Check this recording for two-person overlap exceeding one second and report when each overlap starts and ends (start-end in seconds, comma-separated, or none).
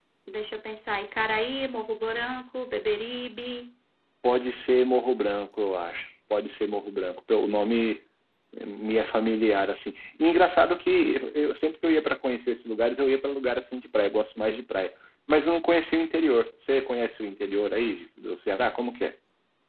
none